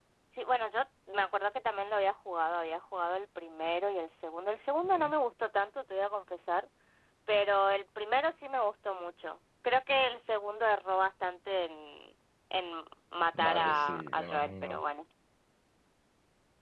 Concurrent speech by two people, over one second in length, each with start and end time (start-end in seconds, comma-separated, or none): 13.3-14.8